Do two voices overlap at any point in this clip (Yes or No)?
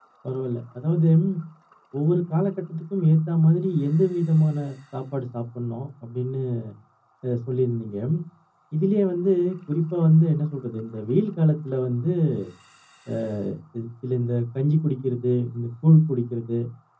No